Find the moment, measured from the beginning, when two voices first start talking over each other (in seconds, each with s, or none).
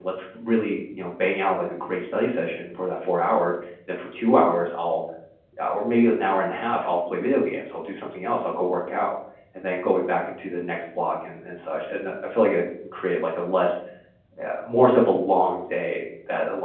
none